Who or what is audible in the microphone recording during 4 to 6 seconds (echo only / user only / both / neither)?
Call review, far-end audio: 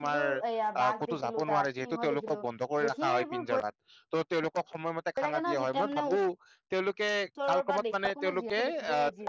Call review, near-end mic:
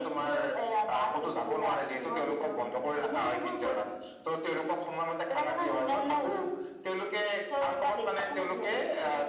echo only